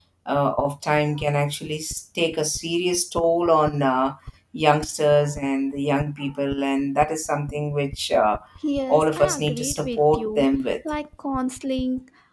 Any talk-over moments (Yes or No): Yes